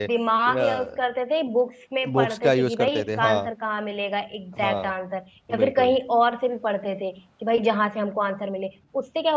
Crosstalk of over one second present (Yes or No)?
Yes